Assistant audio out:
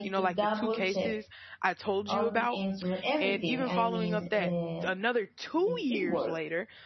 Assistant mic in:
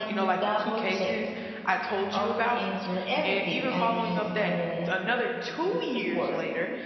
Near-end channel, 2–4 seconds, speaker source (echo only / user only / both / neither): echo only